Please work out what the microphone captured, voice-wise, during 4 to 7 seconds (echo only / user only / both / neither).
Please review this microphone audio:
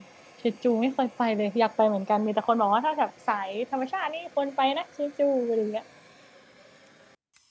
user only